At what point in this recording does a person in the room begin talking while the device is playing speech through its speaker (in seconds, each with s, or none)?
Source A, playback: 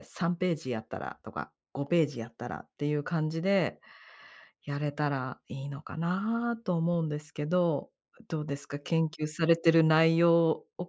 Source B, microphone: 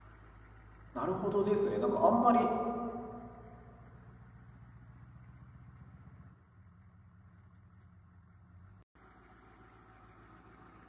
0.9 s